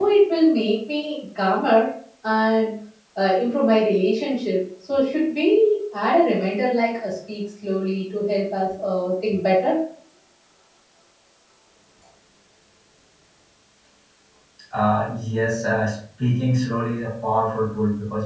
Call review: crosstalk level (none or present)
none